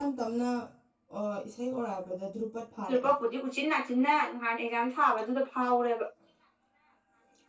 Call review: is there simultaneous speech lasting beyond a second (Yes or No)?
No